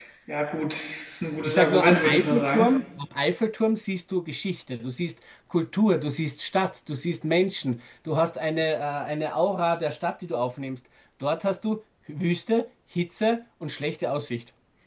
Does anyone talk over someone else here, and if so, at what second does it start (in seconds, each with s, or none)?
1.4 s